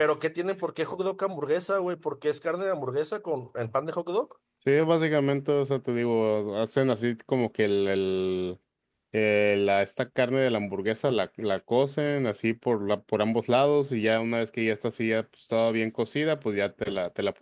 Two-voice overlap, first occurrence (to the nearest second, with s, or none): none